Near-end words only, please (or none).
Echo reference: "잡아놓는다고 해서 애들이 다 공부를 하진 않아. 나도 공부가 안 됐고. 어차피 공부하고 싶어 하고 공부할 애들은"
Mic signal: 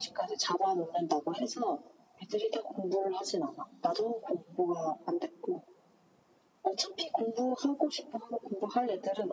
none